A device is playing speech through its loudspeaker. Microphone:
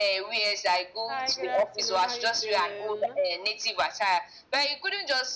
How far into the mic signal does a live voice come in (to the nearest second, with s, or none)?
1 s